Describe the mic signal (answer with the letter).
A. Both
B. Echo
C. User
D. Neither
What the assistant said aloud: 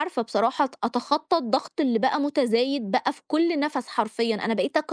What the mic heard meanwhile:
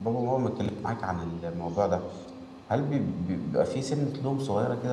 C